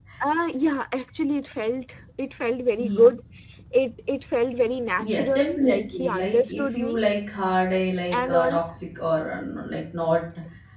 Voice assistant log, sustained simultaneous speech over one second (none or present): present